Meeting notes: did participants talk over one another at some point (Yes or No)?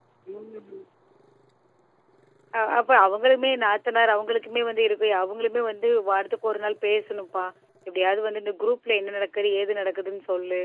No